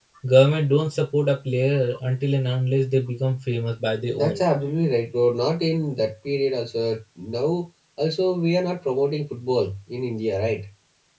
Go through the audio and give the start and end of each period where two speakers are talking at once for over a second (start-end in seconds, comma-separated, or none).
none